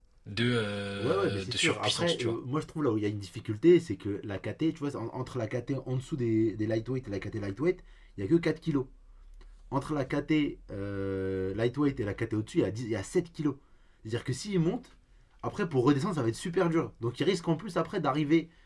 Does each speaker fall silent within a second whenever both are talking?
No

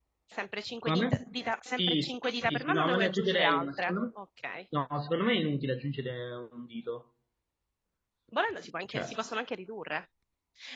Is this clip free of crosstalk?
No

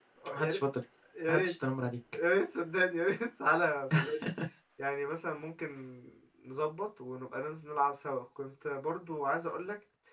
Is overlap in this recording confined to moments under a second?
Yes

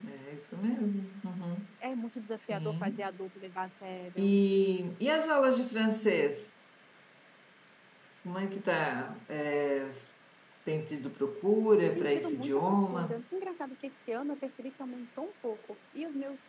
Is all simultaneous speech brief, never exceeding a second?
No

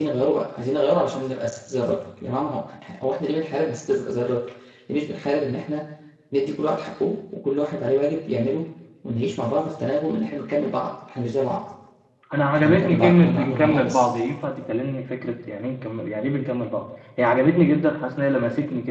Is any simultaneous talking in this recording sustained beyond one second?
Yes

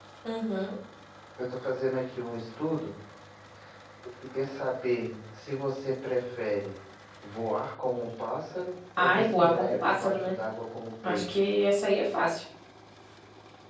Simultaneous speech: Yes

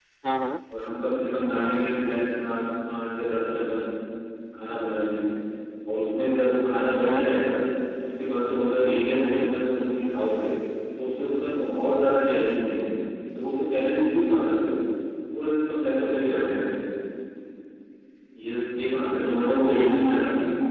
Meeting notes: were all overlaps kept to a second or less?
Yes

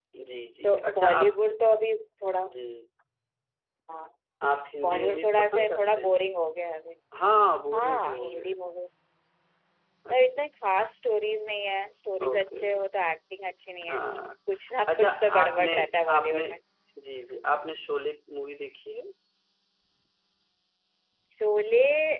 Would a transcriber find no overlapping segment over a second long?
No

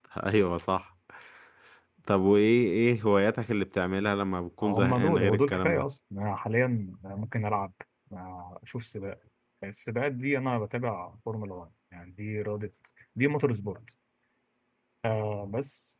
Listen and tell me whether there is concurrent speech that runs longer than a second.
Yes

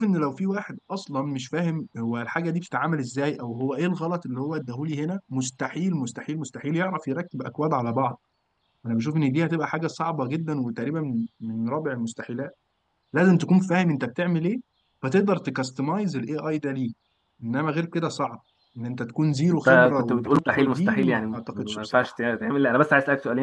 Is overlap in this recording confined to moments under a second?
No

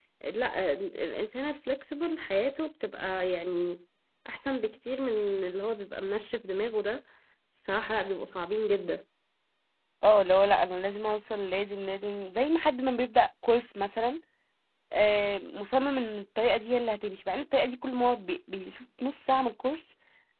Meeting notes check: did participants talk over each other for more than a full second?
No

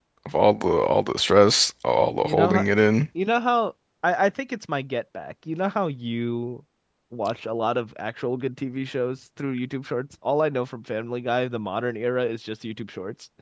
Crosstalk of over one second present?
No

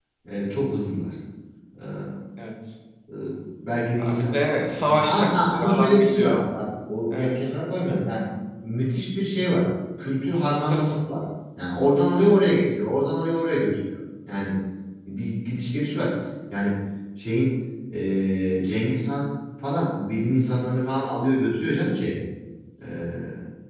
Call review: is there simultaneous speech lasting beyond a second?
Yes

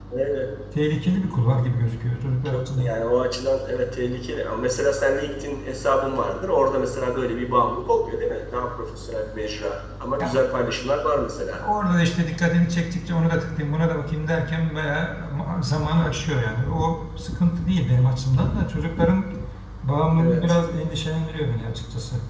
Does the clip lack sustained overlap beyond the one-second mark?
Yes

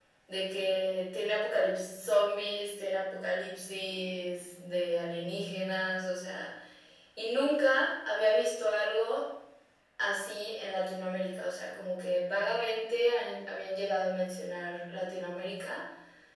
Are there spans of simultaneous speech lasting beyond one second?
No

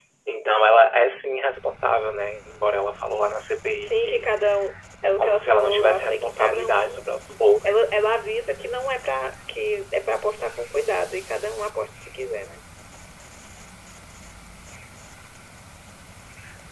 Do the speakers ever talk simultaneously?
Yes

